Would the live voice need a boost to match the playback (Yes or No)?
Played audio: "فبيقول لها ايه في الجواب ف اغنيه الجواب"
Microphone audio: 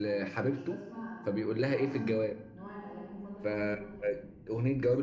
Yes